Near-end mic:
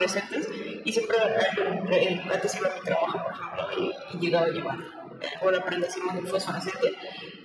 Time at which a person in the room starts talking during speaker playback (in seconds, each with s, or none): none